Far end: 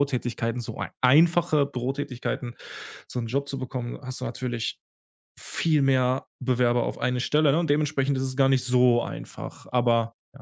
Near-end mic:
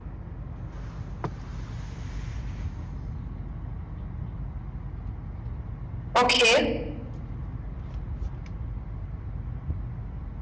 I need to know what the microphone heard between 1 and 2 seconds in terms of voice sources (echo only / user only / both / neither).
neither